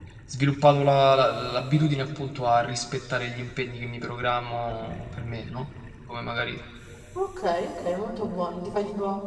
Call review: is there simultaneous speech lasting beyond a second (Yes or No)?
No